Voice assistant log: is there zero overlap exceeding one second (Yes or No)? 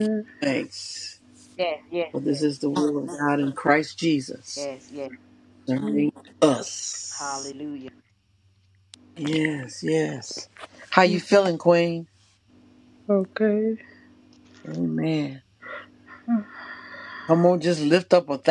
Yes